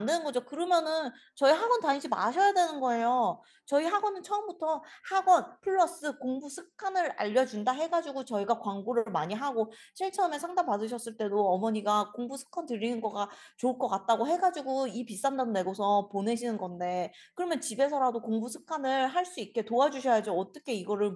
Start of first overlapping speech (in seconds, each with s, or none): none